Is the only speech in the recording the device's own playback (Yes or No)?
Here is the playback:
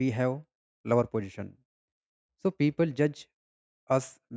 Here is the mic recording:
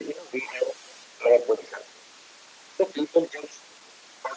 Yes